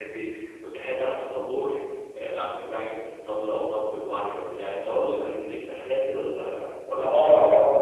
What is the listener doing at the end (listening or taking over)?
taking over